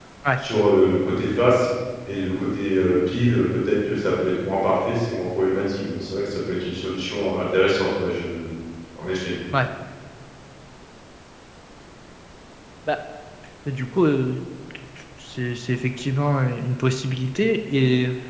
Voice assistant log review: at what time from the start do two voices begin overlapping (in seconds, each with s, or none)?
none